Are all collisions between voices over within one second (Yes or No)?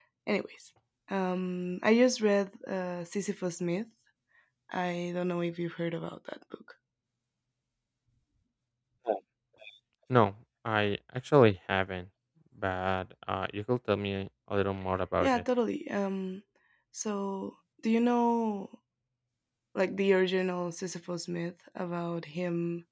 Yes